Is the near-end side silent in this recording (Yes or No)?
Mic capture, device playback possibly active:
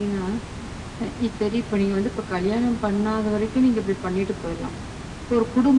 Yes